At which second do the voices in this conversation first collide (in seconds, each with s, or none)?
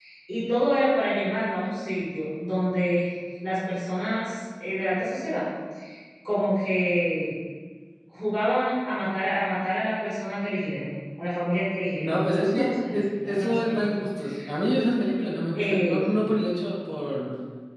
12.0 s